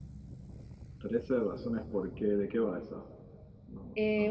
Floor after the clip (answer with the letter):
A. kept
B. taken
B